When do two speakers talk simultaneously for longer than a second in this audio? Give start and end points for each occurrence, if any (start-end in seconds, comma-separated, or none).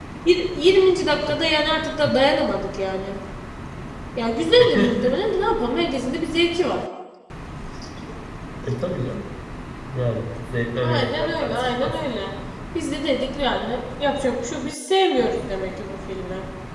10.8-12.0